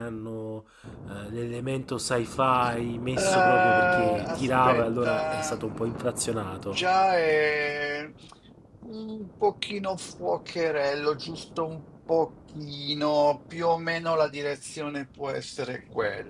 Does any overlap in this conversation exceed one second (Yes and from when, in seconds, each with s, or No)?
Yes, from 3.2 s